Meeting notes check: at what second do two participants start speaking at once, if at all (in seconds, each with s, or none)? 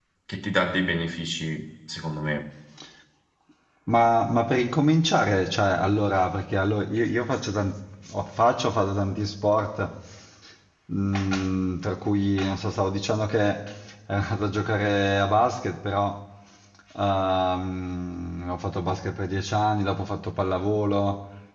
none